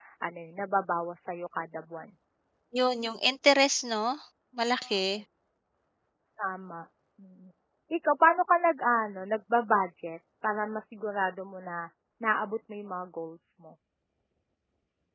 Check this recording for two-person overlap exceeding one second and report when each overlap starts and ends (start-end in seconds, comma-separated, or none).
none